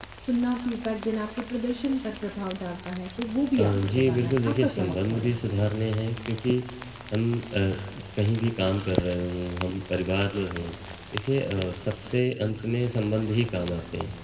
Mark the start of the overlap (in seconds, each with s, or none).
3.6 s